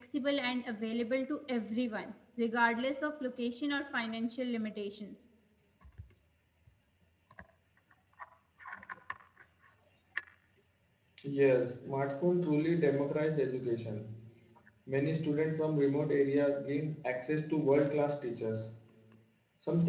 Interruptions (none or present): none